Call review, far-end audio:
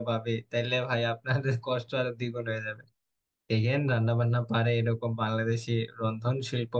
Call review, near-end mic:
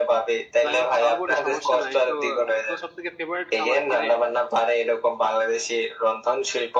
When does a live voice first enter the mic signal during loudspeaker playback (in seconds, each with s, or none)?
0.6 s